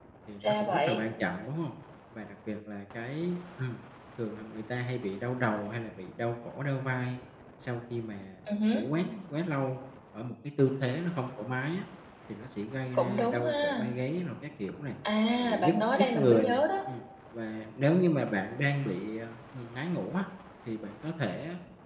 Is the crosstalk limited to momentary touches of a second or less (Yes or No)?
No